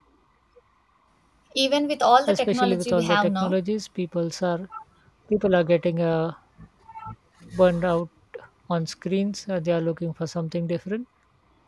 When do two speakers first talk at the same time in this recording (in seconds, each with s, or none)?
2.3 s